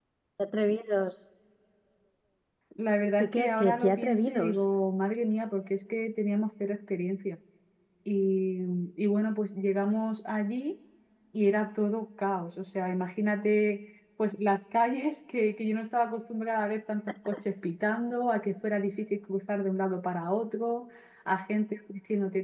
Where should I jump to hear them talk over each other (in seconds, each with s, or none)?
3.2 s